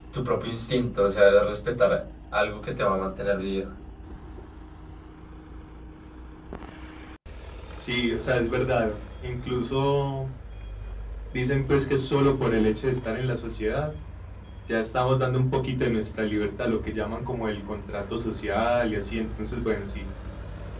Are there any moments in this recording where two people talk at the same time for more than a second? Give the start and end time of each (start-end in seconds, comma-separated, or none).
none